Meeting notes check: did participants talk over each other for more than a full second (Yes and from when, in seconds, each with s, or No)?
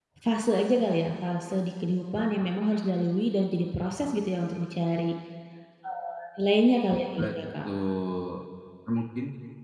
No